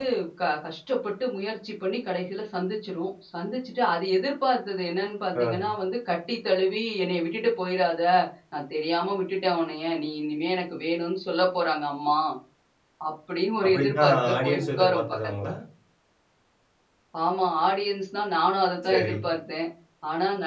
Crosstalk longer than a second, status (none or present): present